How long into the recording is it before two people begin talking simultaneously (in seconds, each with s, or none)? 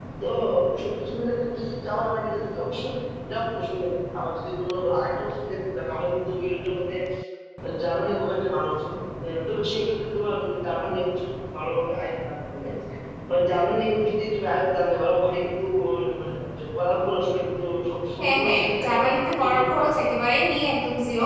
18.2 s